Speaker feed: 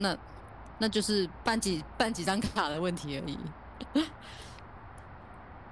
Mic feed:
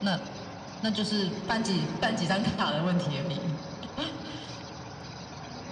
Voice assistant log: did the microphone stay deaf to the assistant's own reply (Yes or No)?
No